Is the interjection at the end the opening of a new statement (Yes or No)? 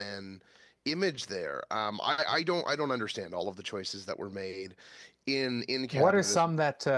Yes